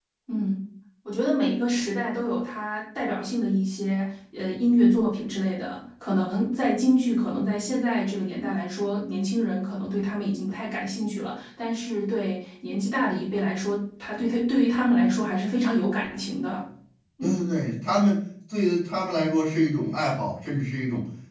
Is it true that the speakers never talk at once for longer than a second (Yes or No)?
Yes